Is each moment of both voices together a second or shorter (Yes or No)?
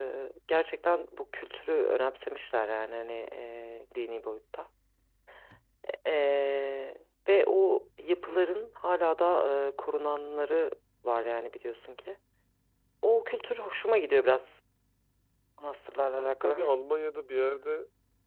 Yes